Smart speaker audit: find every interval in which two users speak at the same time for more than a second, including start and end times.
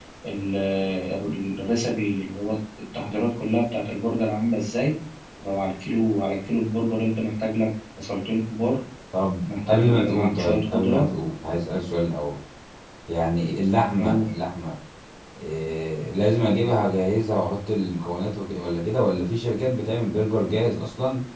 9.5-11.1

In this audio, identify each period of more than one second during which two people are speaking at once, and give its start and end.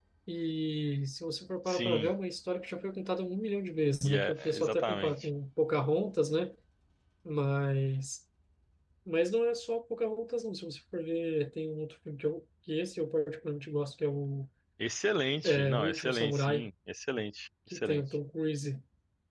4.0-5.3, 15.4-16.7

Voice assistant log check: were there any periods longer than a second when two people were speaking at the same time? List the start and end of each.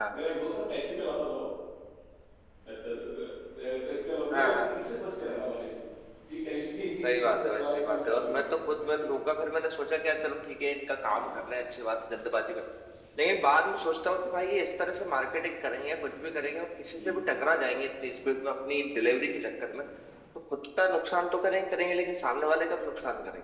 7.0-8.4

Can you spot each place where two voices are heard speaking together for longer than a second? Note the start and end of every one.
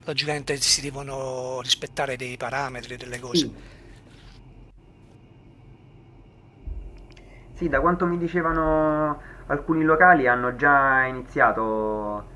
none

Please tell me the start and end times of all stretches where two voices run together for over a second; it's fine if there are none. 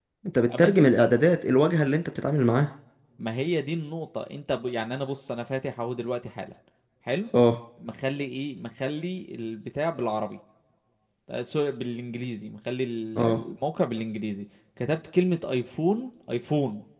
none

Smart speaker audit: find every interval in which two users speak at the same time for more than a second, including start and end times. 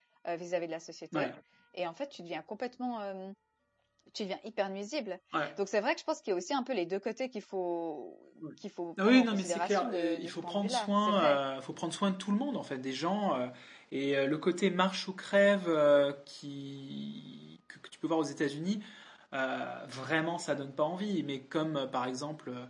9.0-11.4

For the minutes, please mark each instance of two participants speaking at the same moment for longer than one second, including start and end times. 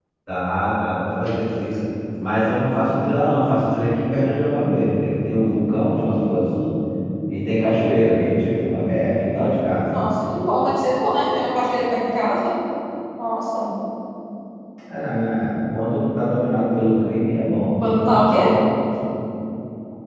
none

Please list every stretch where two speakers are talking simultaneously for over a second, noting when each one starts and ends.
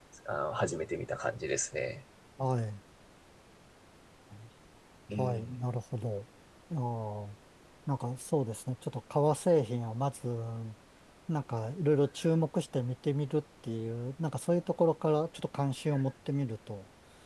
none

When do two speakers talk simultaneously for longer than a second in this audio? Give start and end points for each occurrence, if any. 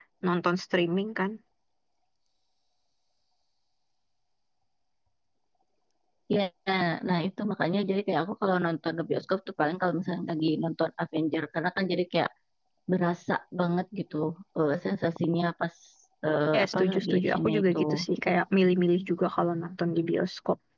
16.5-17.8

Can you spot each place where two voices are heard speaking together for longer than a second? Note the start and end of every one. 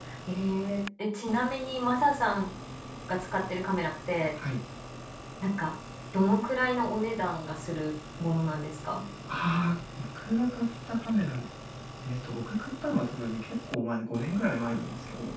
none

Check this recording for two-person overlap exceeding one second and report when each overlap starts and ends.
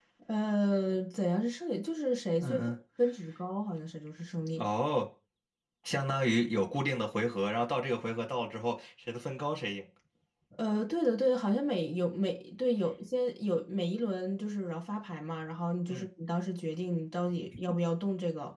none

